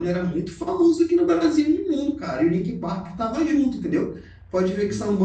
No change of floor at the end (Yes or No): Yes